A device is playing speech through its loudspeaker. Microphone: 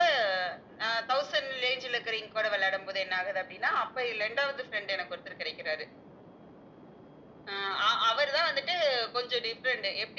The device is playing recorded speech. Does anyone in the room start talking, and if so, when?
none

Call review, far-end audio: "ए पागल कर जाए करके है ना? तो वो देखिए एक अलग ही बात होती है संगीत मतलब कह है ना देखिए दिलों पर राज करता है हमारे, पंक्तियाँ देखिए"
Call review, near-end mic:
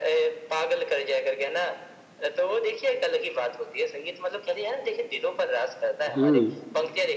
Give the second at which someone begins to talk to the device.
6 s

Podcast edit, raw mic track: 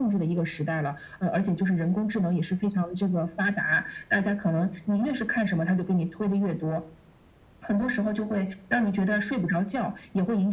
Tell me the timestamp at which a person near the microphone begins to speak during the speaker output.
none

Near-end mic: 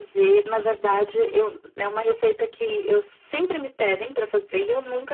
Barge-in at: none

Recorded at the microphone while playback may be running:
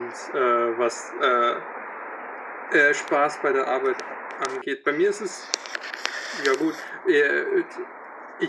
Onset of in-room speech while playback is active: none

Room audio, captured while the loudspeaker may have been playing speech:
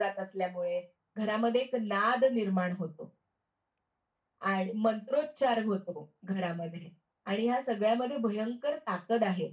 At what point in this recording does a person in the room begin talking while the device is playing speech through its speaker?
none

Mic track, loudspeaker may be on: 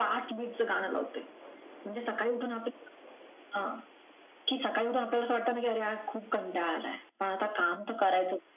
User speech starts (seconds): none

